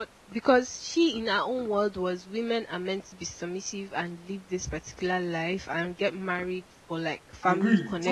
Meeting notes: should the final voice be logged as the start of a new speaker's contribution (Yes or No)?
Yes